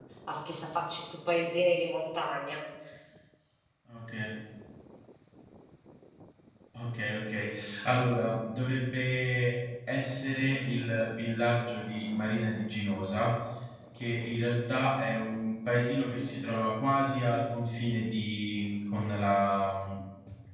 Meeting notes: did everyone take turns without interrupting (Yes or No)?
Yes